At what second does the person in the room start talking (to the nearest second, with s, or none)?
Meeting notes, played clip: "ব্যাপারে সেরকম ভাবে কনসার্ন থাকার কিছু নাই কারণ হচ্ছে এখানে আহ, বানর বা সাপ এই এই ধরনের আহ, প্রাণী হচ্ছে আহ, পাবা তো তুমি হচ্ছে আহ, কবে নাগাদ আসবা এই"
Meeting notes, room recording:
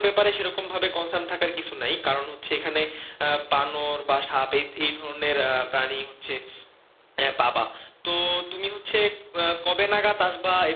none